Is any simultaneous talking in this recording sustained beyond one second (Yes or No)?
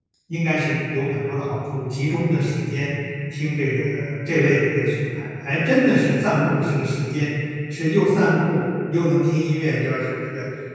No